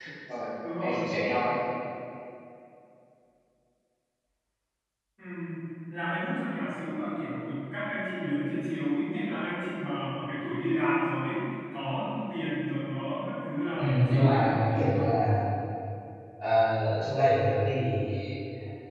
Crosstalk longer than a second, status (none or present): present